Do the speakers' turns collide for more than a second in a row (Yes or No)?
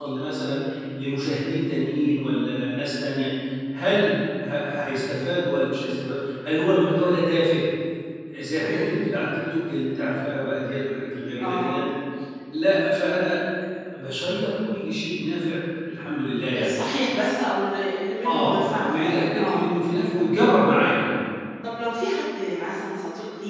Yes